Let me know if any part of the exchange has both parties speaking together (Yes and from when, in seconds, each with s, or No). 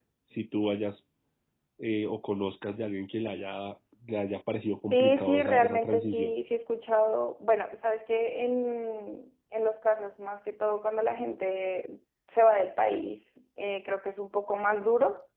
Yes, from 4.9 s